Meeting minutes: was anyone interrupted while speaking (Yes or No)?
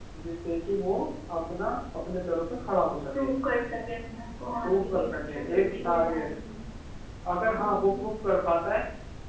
Yes